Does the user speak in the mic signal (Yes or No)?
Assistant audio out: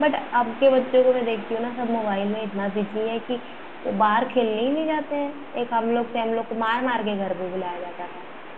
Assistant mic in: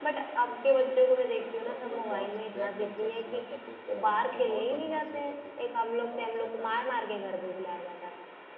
Yes